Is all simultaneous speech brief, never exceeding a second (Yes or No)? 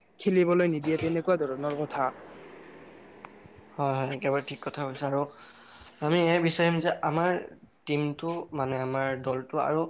Yes